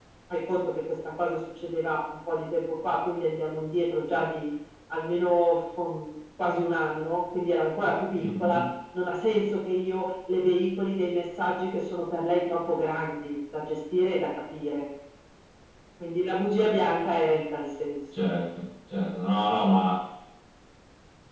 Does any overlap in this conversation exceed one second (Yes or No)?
No